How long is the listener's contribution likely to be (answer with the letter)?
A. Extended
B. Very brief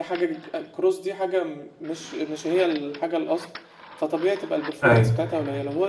B